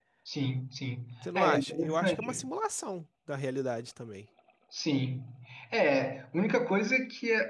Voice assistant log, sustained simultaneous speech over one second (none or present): present